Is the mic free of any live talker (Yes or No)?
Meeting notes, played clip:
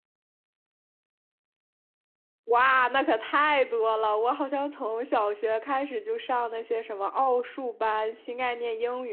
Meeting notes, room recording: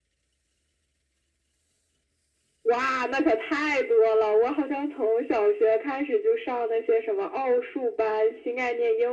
Yes